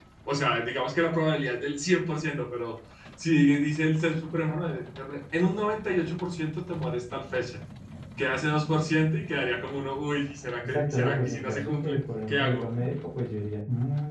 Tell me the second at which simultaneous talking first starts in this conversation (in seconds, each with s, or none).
10.6 s